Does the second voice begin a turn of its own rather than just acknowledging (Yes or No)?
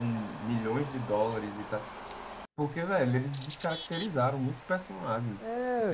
Yes